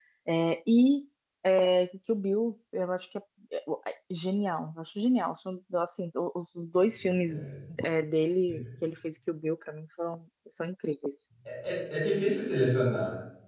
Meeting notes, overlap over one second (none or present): none